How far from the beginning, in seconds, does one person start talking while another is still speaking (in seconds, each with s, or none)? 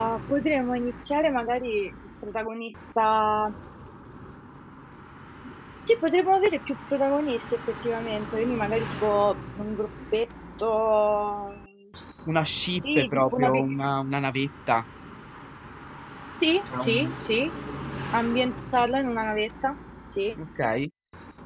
12.3 s